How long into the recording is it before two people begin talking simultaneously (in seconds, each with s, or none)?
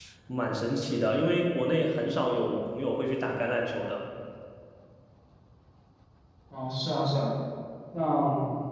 none